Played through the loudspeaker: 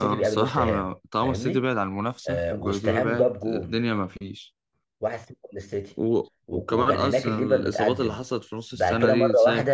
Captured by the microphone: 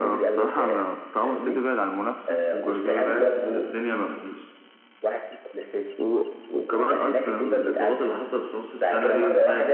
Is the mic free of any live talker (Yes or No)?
Yes